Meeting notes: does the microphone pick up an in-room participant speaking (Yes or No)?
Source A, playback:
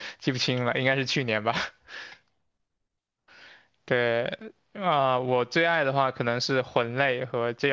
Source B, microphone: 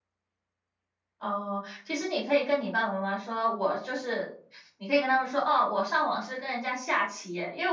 Yes